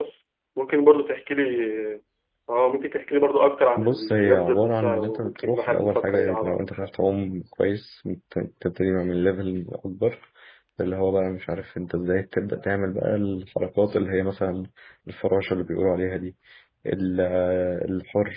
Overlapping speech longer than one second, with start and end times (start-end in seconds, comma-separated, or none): 3.8-6.9